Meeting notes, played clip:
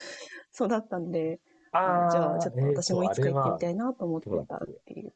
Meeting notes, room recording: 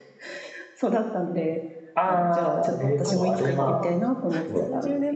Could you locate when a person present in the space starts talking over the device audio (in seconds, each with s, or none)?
2.0 s